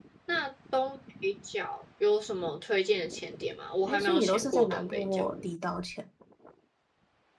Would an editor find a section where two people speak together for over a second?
Yes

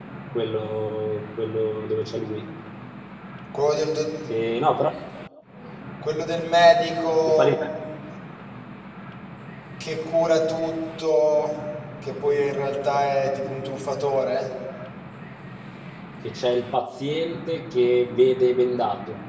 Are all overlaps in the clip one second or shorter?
Yes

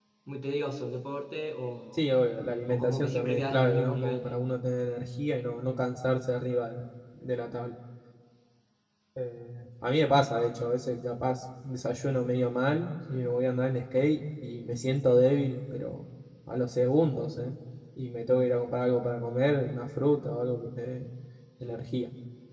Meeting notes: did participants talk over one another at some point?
Yes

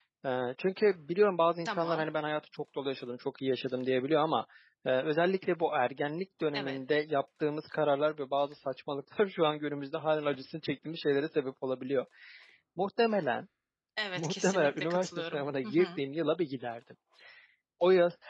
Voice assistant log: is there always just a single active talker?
No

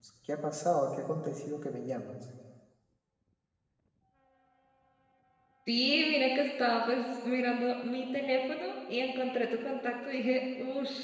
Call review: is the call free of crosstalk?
Yes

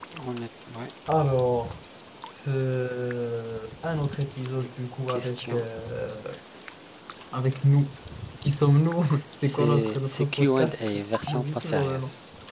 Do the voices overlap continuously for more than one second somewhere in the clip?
Yes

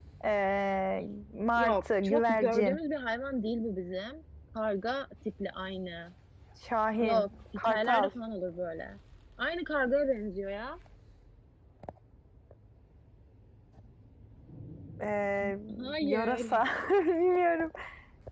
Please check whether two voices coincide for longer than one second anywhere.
Yes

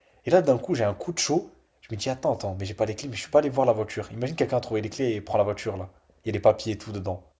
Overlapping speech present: No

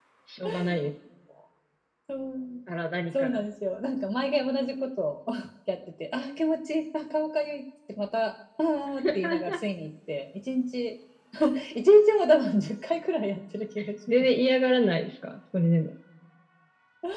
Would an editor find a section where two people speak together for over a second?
No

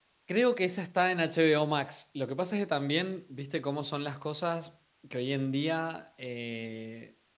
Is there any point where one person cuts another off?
No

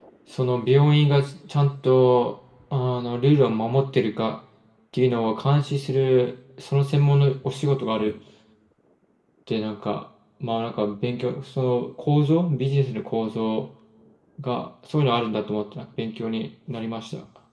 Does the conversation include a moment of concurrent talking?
No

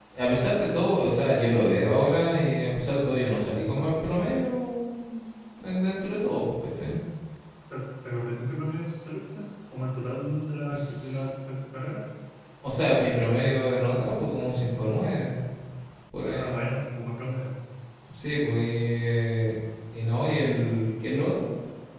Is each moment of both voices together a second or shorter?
Yes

